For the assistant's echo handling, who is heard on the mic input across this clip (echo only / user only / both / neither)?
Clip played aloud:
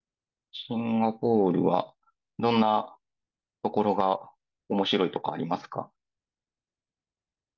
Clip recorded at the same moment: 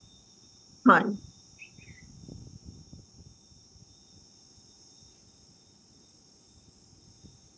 user only